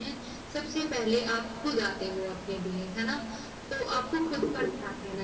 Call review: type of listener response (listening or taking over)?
listening